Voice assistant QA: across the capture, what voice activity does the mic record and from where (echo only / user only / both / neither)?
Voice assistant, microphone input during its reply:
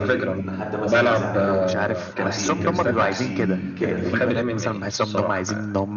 both